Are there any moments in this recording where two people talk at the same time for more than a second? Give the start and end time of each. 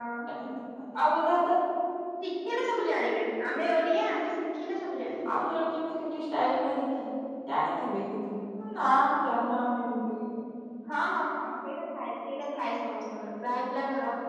none

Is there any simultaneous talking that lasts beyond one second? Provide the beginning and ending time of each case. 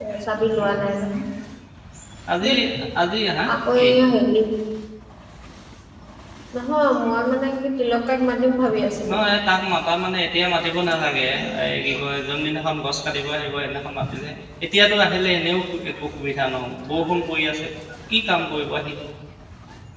none

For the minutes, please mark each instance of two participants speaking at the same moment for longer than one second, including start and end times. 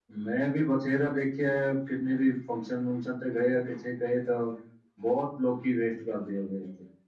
none

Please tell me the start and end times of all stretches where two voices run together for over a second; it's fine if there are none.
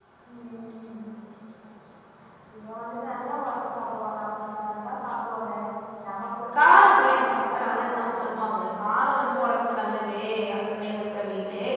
6.6-8.3

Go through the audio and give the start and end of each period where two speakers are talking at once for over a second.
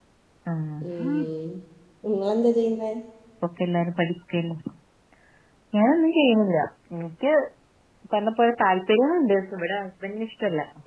none

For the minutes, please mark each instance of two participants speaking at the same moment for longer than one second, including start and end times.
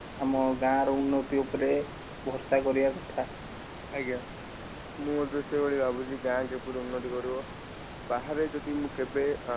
none

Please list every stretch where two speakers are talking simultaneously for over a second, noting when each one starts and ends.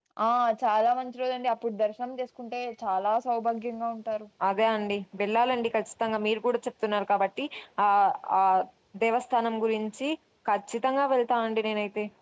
none

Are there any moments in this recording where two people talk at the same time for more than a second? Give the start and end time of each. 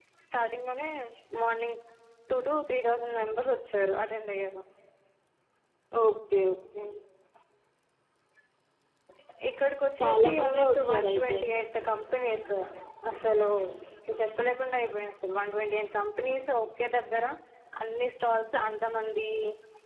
10.0-11.4

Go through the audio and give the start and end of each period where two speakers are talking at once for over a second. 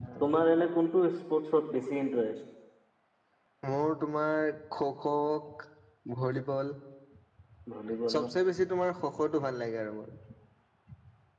none

